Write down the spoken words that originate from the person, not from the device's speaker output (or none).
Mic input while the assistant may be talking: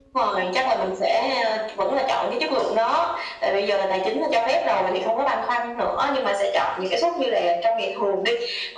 none